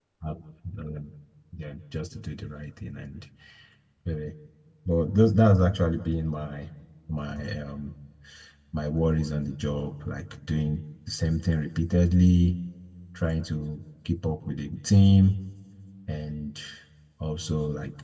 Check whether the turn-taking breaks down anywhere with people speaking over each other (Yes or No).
No